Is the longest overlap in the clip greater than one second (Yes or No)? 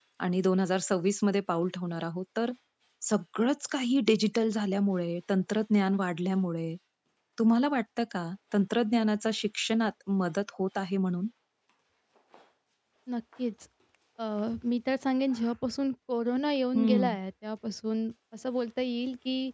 No